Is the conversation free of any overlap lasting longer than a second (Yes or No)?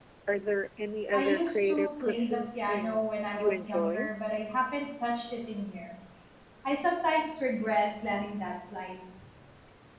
No